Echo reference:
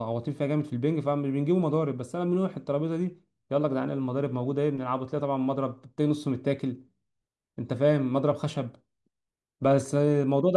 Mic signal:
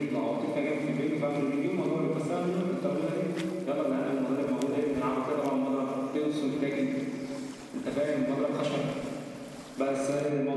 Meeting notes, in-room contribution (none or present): none